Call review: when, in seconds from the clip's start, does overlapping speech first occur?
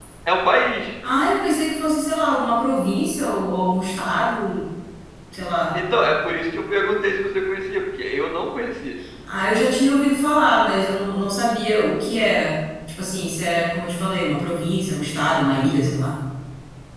none

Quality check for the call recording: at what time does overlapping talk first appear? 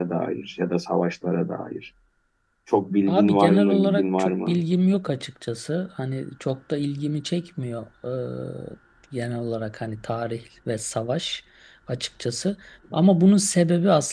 3.1 s

